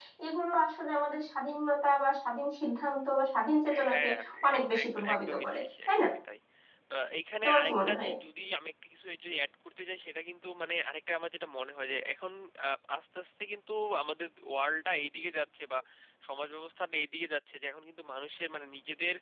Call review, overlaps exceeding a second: present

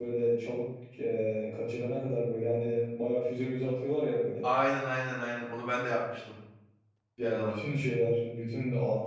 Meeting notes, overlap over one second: none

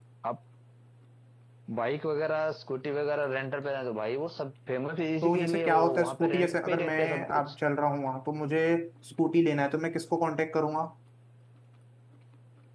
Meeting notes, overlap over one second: present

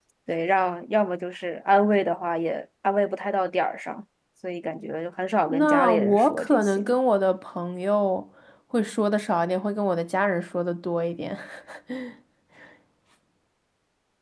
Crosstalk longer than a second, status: present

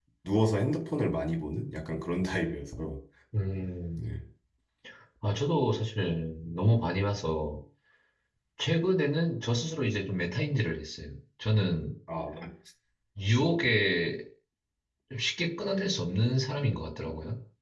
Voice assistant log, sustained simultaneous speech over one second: none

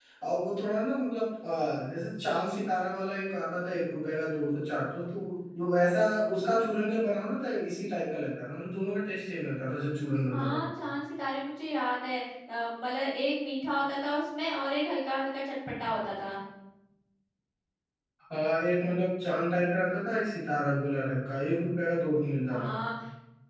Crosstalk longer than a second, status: none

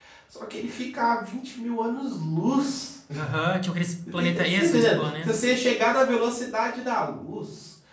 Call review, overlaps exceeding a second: present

